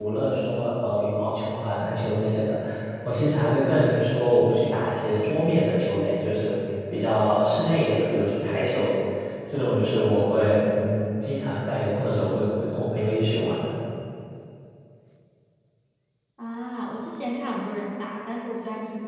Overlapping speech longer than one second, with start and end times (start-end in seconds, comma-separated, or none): none